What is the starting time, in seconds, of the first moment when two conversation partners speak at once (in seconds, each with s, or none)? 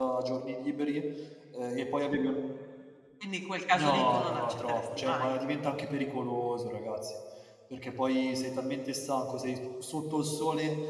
3.8 s